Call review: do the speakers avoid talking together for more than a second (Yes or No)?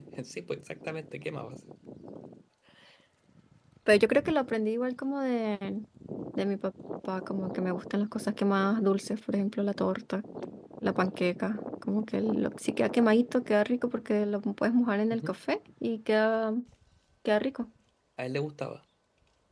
Yes